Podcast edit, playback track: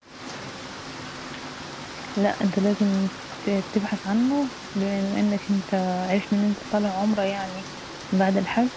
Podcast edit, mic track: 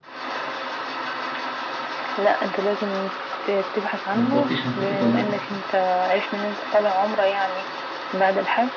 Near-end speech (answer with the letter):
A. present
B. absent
A